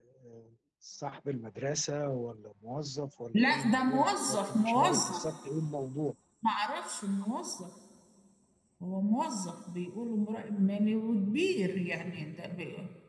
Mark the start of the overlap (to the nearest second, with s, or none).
3 s